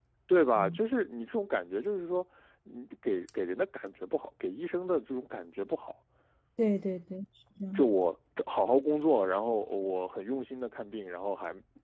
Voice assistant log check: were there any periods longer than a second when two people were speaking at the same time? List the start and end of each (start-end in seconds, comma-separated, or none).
none